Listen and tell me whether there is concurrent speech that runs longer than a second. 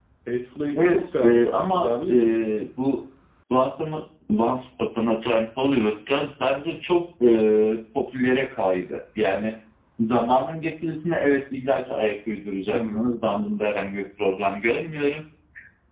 Yes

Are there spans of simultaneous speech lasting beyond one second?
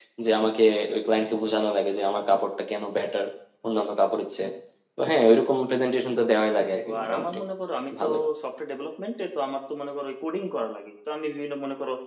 No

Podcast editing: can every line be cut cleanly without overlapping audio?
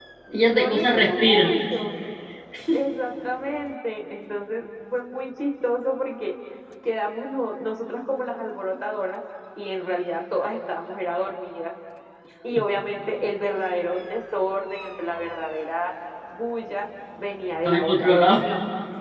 No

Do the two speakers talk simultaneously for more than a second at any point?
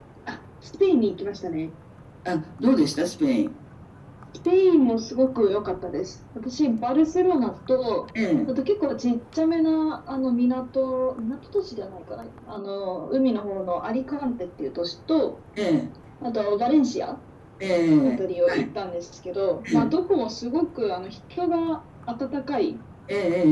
No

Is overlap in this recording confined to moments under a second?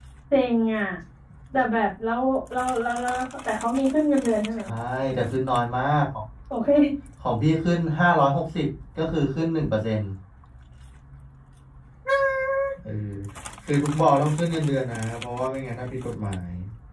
Yes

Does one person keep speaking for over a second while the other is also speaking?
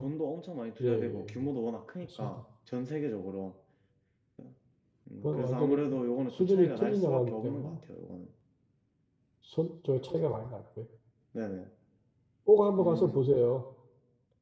Yes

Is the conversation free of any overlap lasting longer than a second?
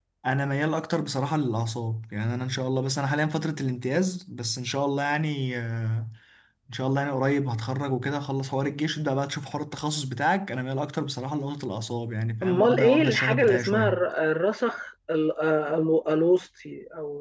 No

